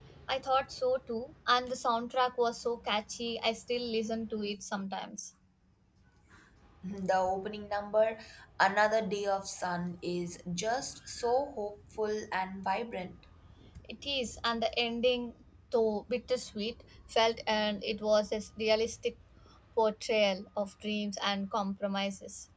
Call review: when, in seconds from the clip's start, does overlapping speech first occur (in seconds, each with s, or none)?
none